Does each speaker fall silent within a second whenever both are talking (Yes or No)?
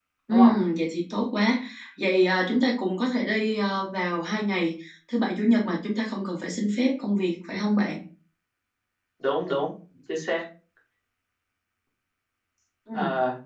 Yes